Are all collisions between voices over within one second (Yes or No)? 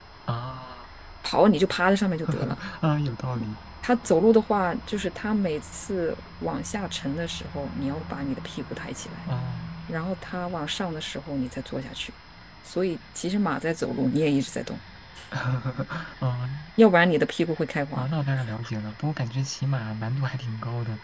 Yes